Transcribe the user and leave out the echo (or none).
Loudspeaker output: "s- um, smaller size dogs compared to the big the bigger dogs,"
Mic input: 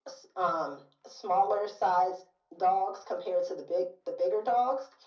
none